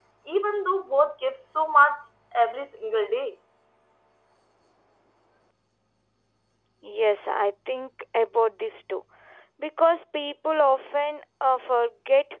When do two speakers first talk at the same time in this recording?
none

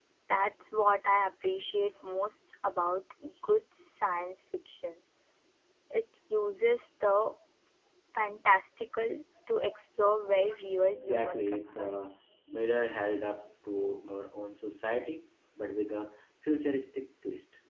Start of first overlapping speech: 11 s

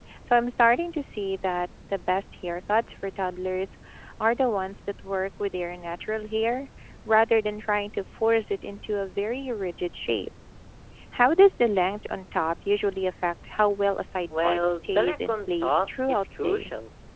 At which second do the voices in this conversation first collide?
14 s

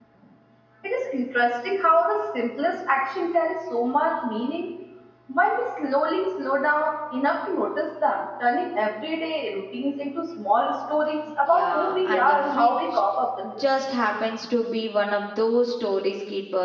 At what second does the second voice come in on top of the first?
11 s

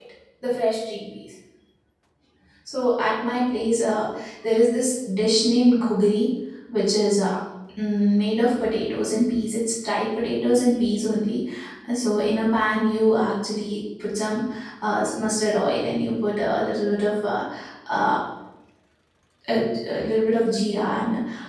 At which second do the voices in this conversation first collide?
none

